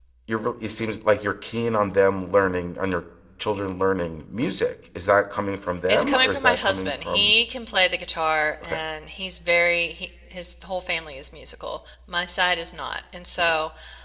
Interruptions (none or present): present